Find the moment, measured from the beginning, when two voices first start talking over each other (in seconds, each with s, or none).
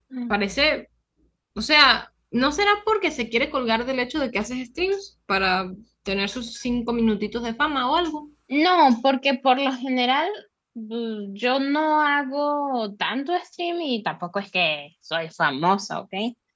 none